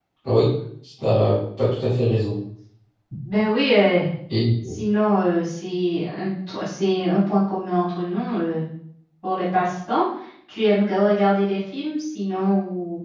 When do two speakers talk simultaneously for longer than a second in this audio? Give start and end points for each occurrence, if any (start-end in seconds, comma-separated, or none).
none